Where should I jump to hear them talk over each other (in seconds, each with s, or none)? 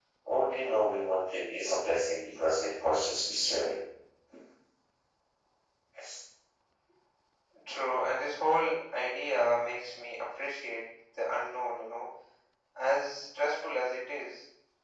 none